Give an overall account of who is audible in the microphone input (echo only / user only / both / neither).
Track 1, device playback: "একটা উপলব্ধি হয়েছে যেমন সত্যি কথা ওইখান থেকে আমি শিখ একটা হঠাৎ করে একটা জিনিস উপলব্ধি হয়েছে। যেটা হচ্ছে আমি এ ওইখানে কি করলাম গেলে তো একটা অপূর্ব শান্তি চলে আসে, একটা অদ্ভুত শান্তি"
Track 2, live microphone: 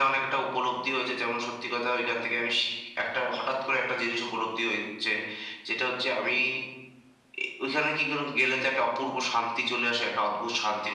echo only